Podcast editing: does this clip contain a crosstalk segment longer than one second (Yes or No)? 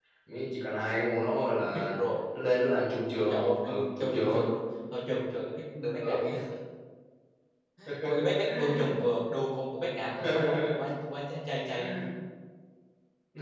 Yes